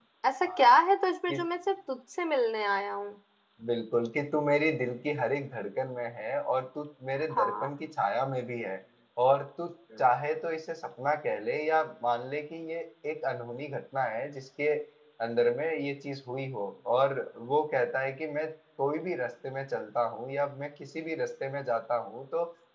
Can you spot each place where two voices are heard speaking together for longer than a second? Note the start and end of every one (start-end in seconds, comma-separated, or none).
none